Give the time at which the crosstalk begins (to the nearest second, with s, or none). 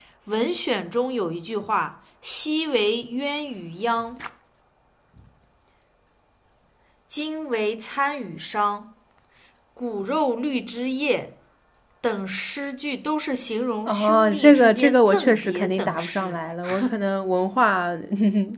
14 s